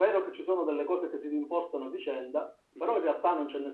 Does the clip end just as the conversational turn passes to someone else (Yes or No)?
No